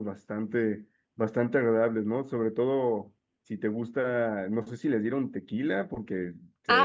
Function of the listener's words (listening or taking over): taking over